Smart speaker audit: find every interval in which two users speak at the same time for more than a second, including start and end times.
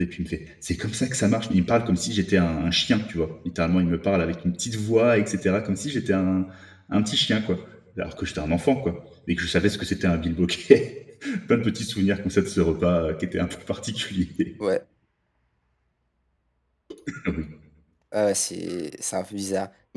none

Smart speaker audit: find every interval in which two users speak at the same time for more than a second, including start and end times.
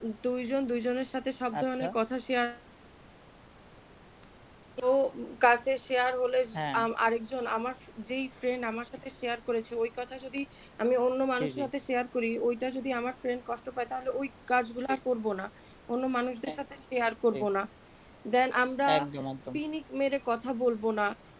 none

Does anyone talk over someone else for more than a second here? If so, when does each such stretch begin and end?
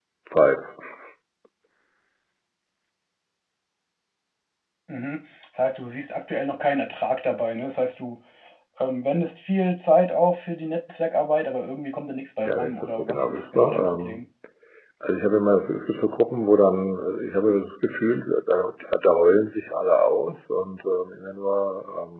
12.4-14.2

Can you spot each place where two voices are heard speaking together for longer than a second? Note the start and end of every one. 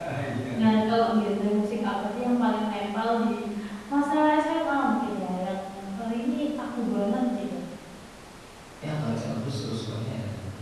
none

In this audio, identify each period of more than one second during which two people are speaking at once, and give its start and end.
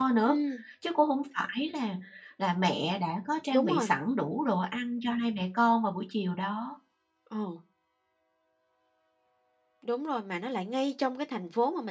none

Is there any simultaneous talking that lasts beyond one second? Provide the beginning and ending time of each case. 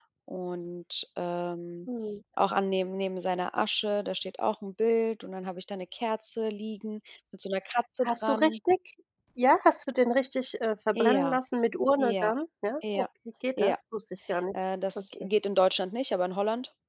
none

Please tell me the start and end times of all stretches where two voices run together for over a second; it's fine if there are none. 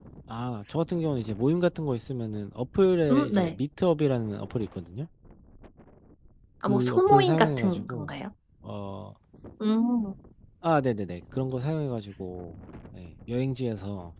6.7-8.1

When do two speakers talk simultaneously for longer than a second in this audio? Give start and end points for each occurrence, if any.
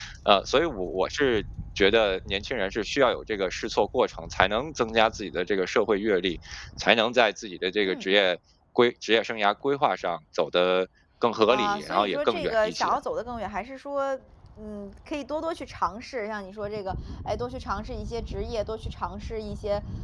11.5-12.9

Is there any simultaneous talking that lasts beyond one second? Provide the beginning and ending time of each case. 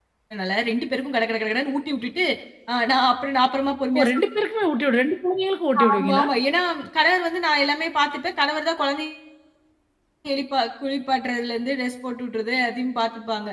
none

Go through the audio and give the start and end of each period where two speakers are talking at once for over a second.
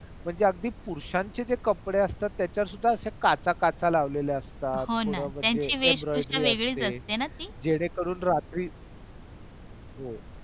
4.8-7.0

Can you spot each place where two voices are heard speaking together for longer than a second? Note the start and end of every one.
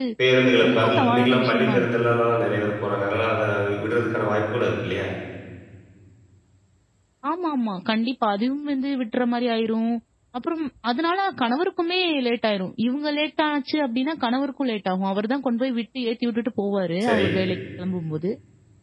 0.7-1.9

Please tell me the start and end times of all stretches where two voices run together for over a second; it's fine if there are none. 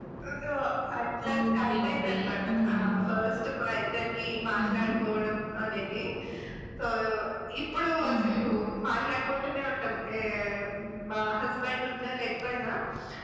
1.3-2.9

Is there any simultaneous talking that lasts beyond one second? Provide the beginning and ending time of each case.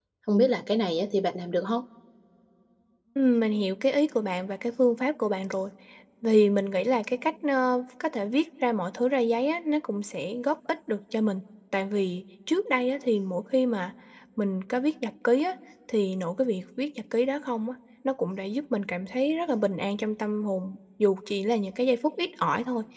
none

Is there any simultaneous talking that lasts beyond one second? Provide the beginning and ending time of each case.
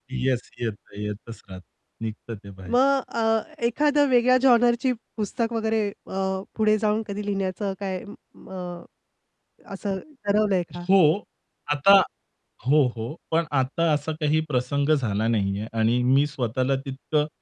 none

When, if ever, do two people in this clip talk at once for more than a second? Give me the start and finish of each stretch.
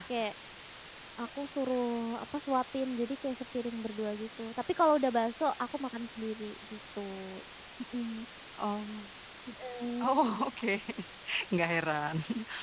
none

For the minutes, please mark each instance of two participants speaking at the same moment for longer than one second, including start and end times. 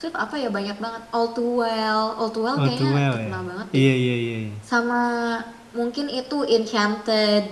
2.6-3.8

